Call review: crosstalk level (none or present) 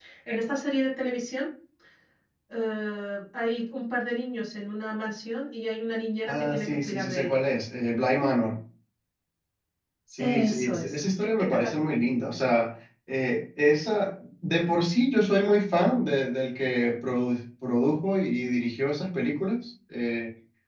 present